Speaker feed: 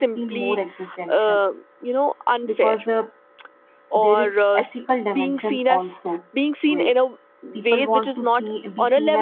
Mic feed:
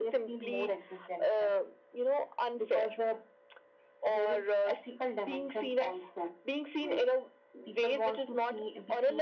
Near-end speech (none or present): none